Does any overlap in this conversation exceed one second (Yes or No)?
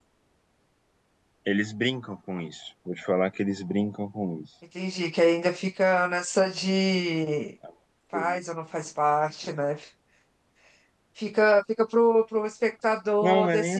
No